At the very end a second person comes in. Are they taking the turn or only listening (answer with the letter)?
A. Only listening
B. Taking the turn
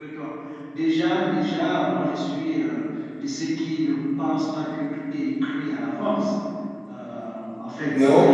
A